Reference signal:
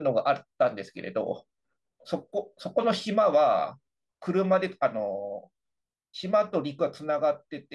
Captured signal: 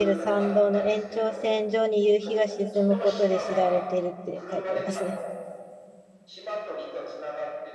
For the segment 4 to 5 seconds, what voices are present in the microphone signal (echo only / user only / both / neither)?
both